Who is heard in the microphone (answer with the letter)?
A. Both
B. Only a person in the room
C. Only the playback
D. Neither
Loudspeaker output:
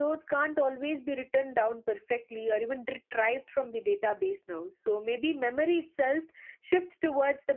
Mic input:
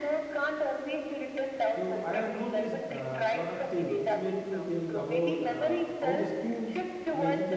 A